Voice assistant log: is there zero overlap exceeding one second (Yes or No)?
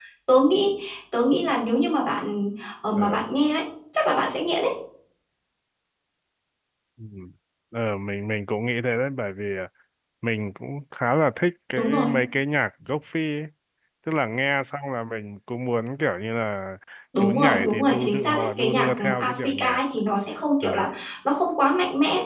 No